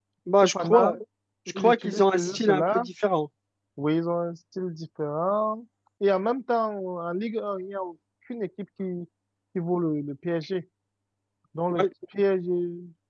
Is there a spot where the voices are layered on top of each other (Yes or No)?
Yes